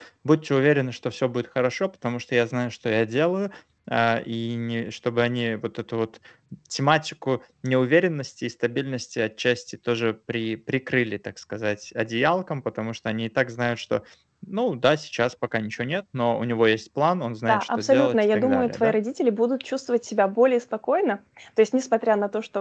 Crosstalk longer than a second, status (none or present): present